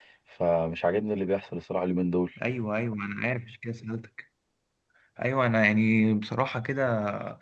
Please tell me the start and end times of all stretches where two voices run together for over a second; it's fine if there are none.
none

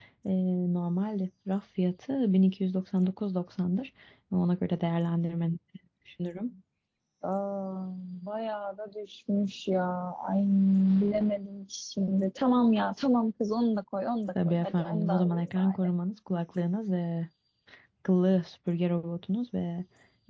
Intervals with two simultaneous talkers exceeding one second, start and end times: 14.4-15.8

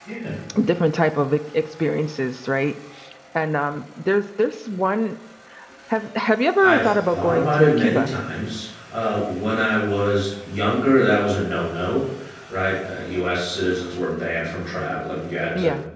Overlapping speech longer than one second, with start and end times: 6.6-8.1

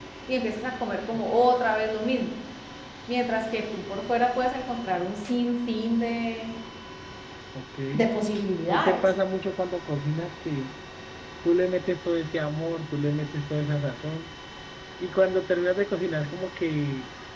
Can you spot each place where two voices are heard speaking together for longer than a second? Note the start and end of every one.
none

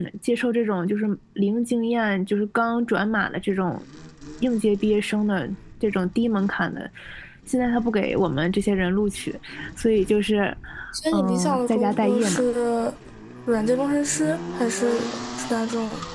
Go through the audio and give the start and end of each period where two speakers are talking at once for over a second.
11.1-12.4

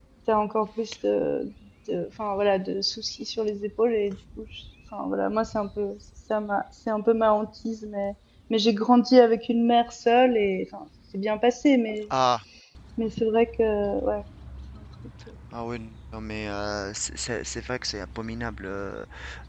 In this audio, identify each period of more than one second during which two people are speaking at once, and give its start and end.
none

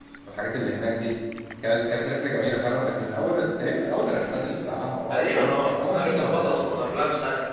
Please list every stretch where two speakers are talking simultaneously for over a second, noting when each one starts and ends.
5.1-7.0

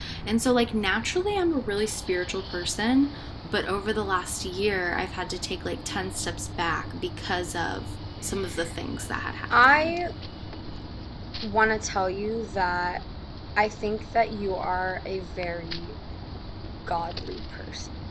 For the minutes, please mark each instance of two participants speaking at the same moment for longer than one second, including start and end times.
none

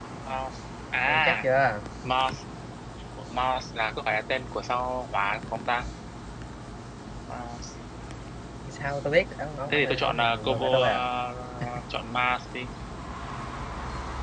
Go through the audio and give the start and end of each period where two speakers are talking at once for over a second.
9.7-11.0

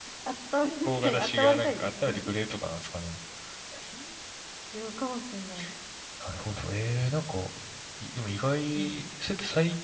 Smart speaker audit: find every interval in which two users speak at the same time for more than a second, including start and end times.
0.8-2.2

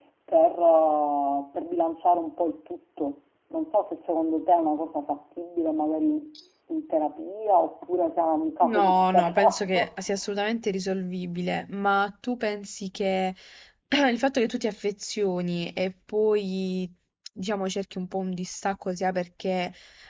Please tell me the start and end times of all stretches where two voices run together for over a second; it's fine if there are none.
8.6-9.9

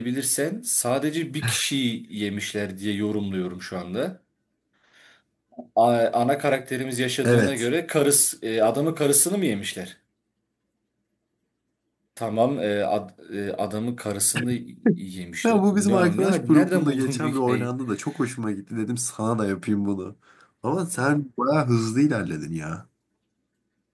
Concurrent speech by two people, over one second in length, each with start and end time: 15.4-17.7

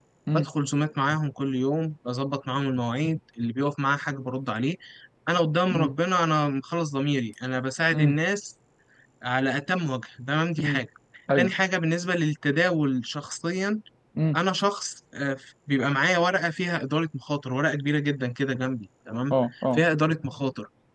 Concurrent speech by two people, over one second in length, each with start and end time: none

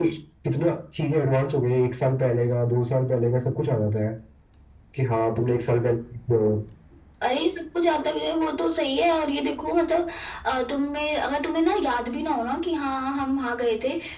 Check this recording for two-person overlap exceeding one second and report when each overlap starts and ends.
none

